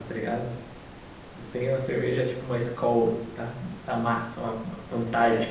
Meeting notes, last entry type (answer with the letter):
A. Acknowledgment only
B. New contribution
B